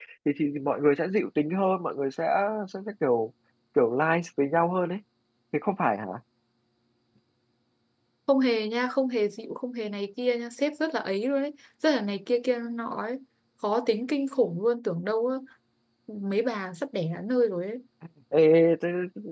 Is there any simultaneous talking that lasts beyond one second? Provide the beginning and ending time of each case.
none

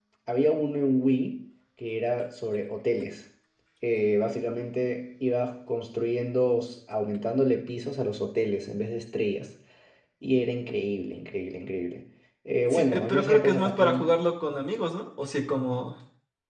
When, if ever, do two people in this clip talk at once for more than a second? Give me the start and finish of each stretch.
12.7-14.1

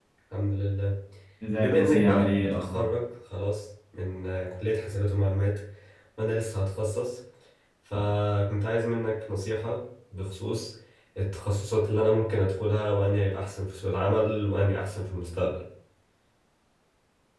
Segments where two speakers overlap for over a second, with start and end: 1.6-2.9

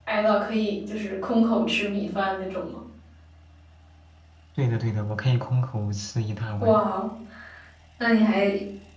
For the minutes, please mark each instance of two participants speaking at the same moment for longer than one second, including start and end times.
none

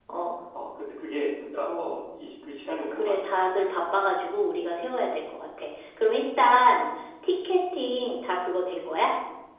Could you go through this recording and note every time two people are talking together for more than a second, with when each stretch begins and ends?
none

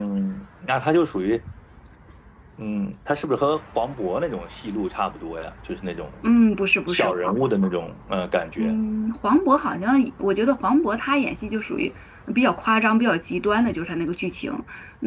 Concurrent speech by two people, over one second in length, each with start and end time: none

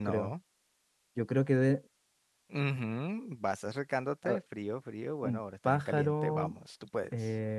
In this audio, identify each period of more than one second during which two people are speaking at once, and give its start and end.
5.2-6.5

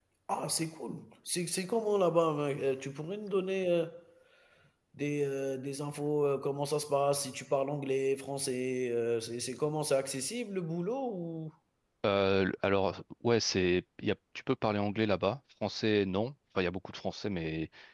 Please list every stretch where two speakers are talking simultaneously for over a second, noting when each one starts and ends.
none

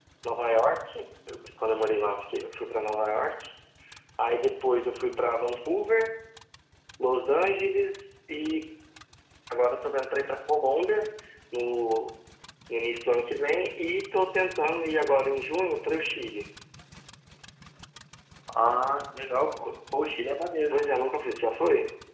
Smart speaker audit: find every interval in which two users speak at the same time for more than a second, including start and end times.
none

